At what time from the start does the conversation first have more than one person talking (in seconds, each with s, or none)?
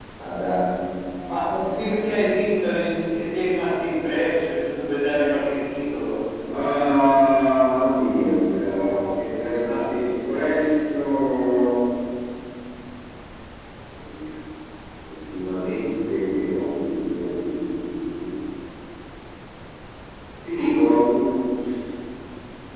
none